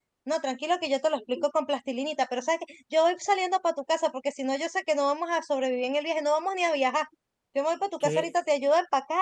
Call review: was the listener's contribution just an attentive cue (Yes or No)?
Yes